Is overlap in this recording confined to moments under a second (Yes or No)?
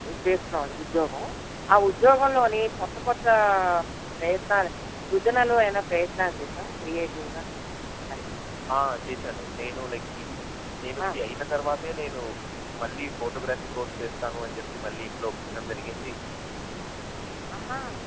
Yes